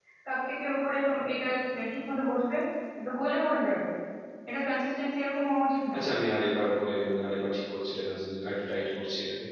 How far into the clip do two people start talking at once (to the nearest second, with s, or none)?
none